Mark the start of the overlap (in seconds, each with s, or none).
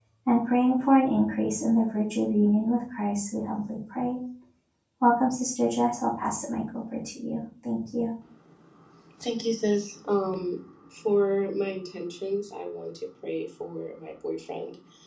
none